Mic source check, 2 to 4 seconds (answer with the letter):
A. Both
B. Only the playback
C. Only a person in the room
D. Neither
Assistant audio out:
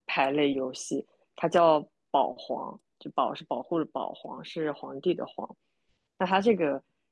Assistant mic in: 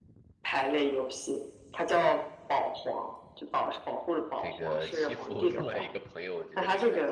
B